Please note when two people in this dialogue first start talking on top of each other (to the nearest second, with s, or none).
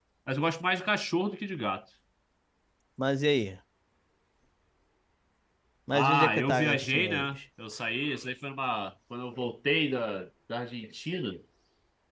6 s